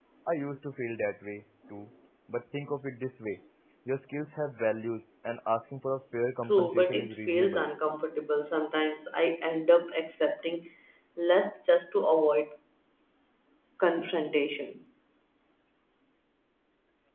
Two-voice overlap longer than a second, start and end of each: 6.4-7.7

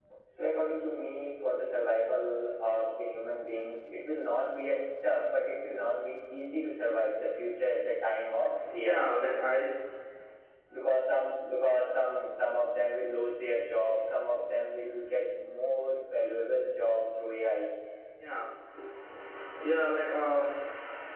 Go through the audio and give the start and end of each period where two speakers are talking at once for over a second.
none

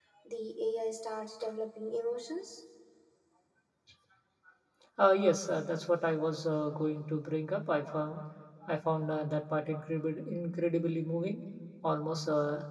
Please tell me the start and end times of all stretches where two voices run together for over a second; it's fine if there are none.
none

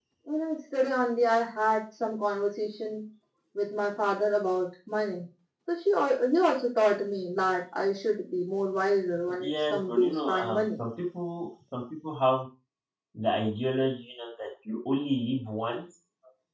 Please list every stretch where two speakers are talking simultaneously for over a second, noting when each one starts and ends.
9.4-10.8

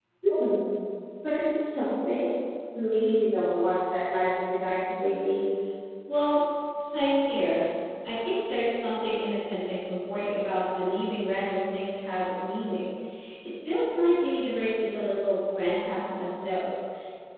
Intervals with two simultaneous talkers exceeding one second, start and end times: none

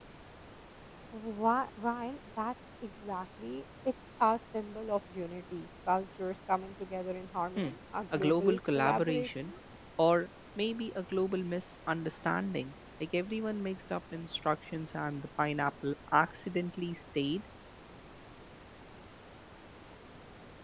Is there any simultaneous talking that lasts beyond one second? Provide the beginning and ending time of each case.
8.2-9.5

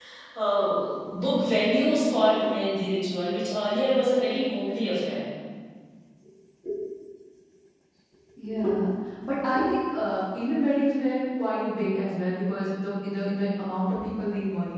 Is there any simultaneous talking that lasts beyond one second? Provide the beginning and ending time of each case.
none

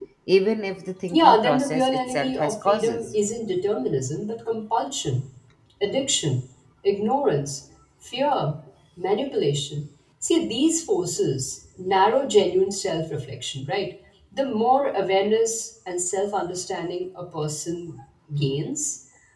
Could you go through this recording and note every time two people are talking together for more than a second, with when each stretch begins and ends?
1.1-3.1

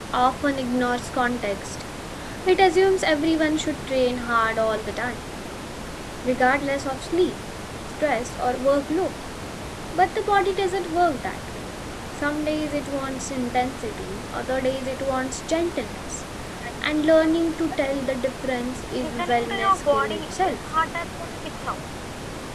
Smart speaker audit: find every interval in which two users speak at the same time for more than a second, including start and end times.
19.0-20.6

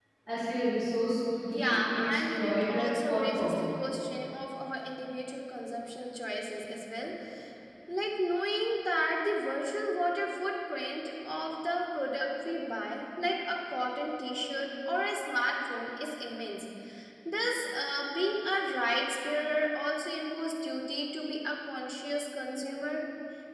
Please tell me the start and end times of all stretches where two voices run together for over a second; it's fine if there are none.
1.5-3.7

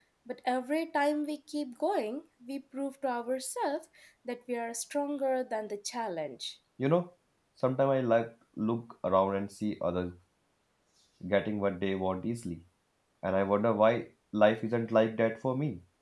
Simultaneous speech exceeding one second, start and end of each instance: none

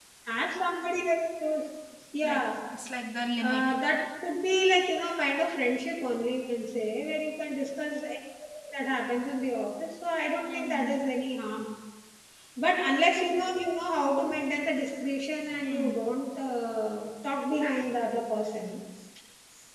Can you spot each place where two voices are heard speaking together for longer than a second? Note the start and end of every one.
none

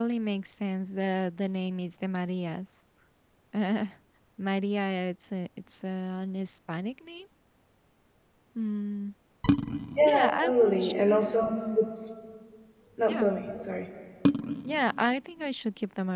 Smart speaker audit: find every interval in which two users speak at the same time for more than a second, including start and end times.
10.1-11.3

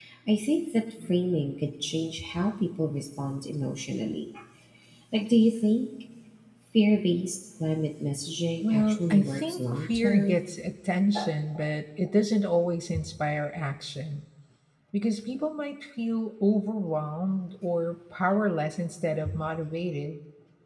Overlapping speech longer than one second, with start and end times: 8.6-10.4

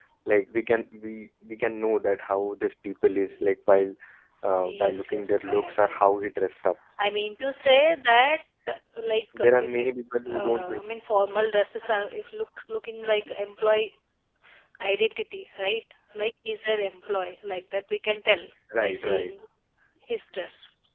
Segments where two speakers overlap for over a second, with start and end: 4.6-6.0

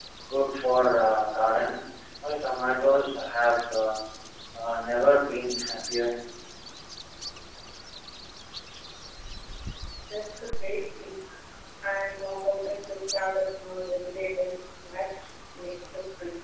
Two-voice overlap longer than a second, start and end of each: none

